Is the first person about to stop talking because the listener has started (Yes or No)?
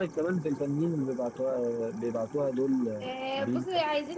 Yes